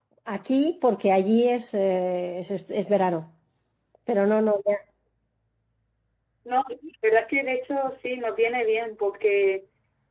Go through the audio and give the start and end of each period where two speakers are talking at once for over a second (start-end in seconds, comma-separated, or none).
none